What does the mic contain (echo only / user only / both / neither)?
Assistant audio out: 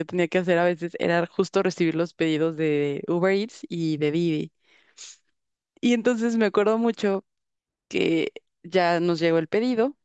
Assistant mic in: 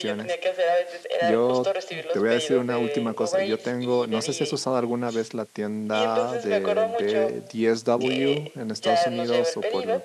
both